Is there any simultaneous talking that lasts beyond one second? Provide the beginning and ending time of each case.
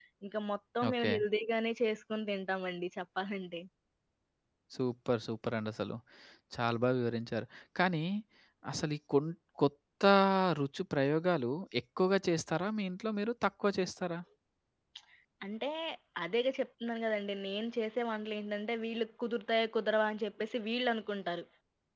none

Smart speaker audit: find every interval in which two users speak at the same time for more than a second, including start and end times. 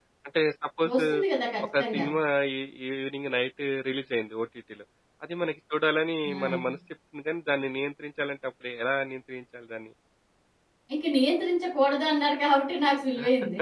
none

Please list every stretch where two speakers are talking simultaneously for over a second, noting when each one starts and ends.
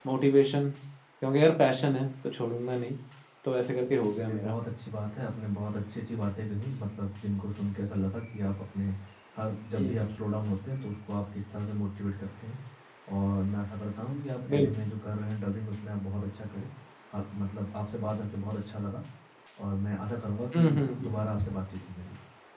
none

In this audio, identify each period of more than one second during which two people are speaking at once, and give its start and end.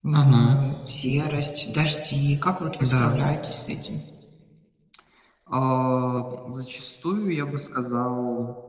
none

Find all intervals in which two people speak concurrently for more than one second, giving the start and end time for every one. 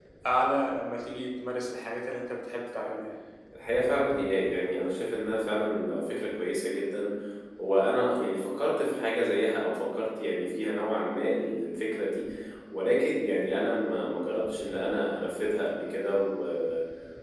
none

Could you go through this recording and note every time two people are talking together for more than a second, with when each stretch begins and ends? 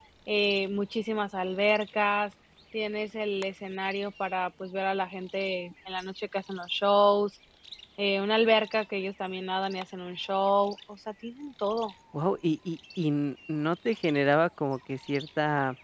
none

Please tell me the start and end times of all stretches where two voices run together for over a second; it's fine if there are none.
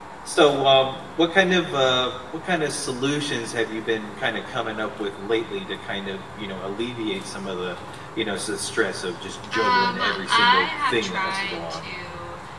9.5-11.9

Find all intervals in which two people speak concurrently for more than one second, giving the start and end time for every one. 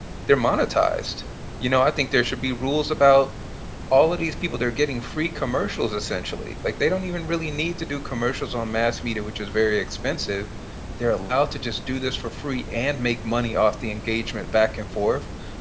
none

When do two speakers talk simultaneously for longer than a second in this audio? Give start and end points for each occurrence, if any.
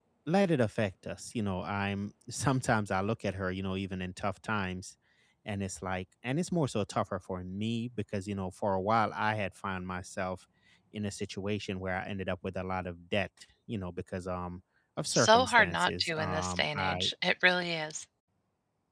15.1-17.1

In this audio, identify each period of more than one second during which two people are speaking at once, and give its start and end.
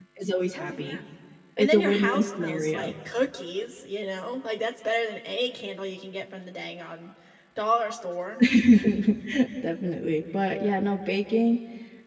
1.6-2.9

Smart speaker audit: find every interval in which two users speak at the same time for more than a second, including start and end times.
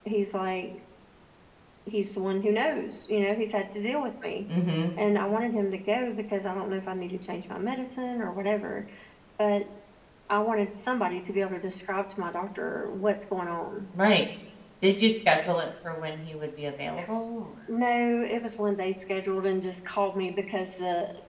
none

